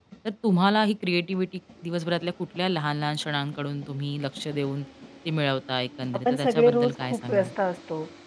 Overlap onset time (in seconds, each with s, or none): 6.1 s